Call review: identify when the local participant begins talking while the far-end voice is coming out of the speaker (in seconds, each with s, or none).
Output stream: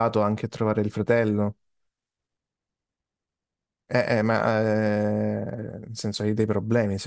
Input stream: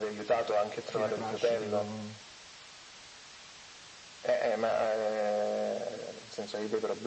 0.9 s